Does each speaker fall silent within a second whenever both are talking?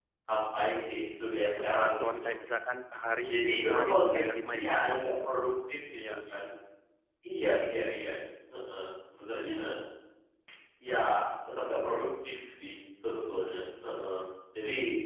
No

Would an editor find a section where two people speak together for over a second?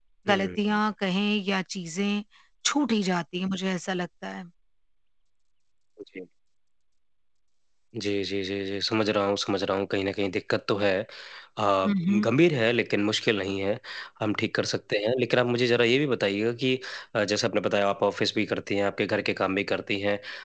No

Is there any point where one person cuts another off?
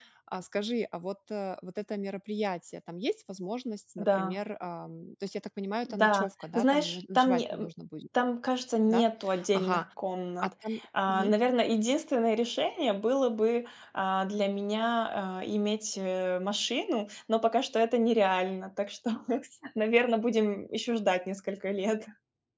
Yes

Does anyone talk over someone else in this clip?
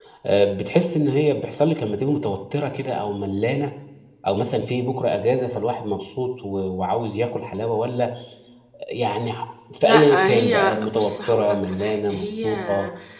Yes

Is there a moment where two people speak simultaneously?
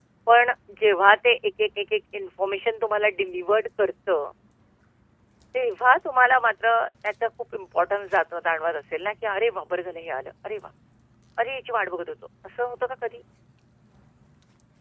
No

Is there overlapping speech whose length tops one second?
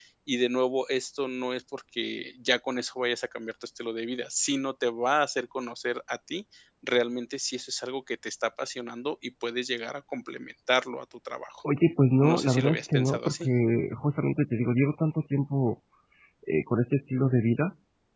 Yes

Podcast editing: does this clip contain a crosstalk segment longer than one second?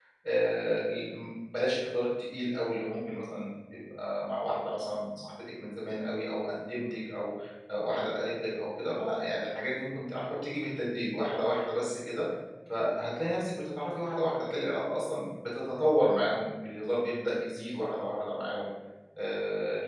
No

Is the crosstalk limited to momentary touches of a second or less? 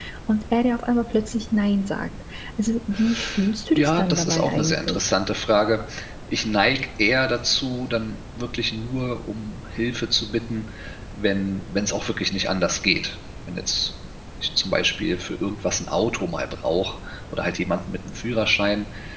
No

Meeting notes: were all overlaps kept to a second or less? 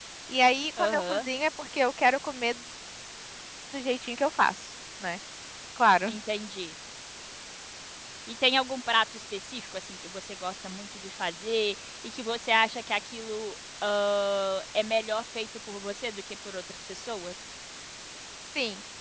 Yes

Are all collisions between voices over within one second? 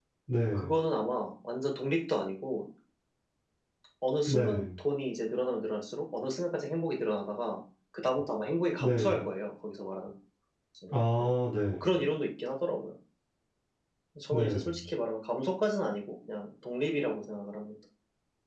Yes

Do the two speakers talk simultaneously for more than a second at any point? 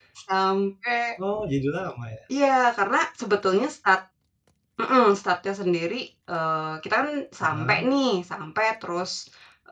No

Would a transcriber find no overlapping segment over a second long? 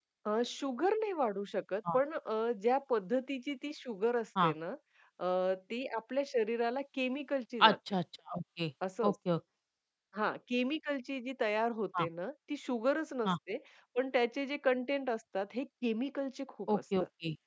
Yes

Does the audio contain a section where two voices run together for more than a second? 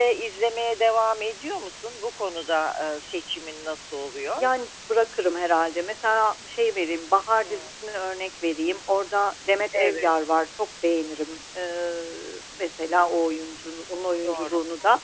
No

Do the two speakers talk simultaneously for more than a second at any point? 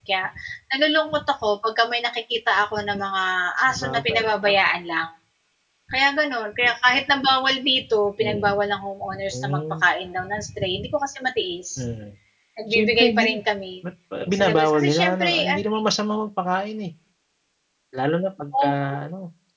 Yes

